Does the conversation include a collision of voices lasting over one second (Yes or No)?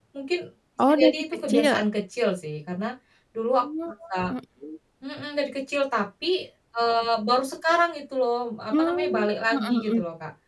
Yes